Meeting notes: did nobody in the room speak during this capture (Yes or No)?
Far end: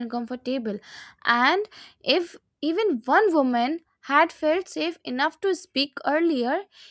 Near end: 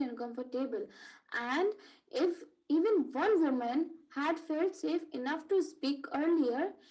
Yes